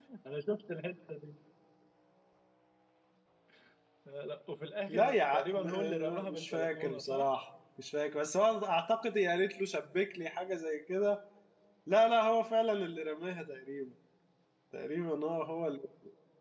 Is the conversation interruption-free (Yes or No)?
No